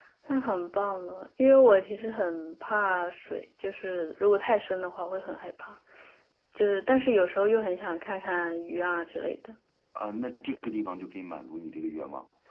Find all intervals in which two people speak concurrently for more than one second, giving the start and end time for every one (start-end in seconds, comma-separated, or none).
none